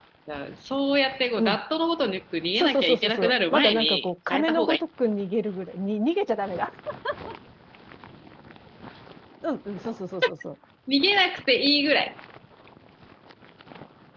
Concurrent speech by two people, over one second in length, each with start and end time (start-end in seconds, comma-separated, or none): 2.5-4.7